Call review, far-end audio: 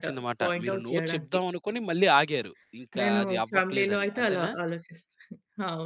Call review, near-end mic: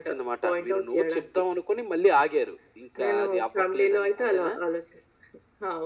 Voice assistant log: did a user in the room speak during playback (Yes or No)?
No